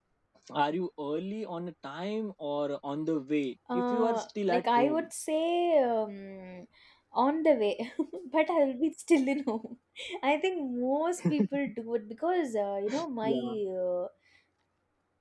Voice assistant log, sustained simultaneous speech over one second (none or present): present